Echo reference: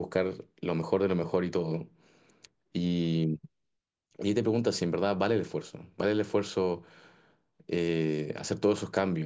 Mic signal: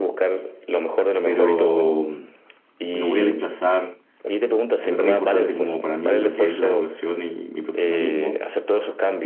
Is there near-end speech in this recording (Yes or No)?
Yes